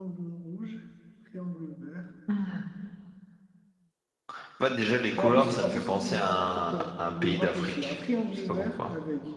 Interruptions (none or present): present